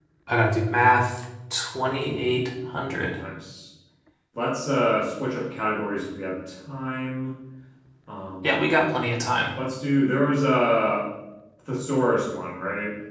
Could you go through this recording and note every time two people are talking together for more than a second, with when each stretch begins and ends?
none

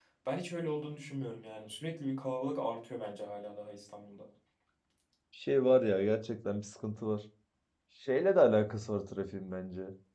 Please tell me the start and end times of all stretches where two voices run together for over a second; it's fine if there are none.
none

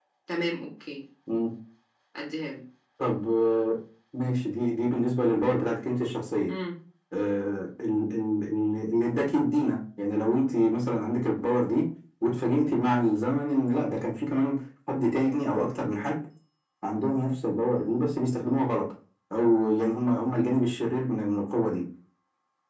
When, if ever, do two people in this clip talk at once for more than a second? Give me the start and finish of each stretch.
none

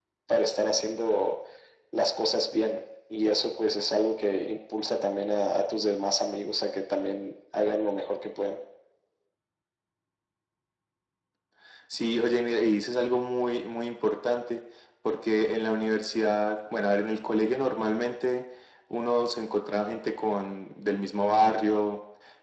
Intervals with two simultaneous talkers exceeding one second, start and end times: none

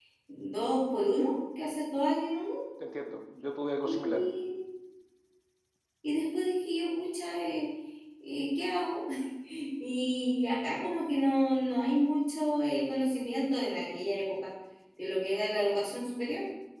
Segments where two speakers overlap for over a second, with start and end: none

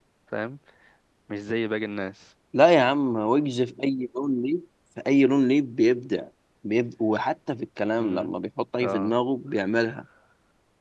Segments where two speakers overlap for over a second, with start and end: none

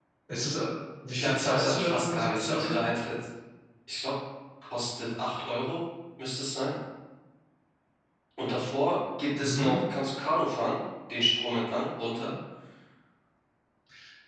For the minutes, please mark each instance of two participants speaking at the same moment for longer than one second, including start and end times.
1.1-2.8

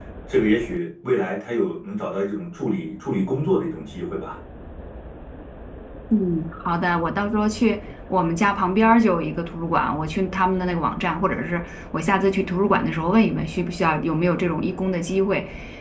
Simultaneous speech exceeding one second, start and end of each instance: none

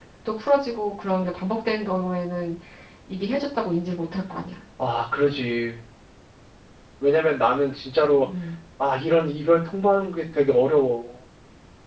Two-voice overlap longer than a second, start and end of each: none

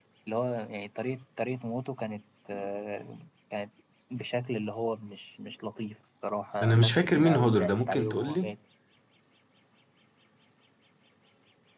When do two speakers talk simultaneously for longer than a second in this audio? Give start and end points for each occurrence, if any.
6.6-8.5

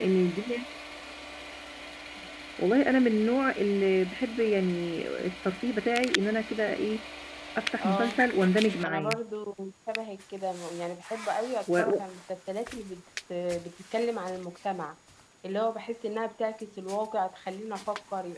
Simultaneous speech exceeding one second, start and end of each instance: none

